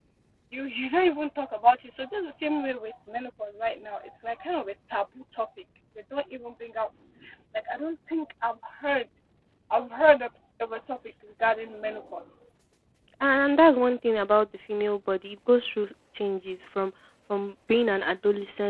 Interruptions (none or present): none